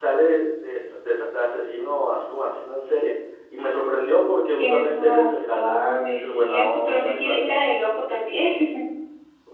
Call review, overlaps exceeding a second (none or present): present